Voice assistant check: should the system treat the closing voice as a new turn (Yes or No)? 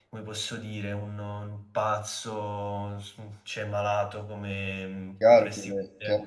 Yes